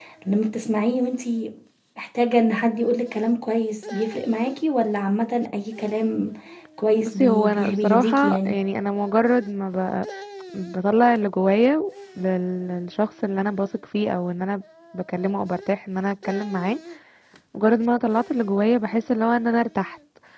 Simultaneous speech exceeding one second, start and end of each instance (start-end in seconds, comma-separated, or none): 7.0-8.6